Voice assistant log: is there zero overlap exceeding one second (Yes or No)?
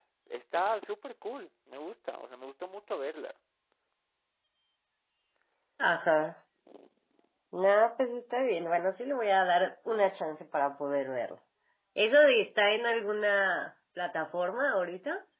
Yes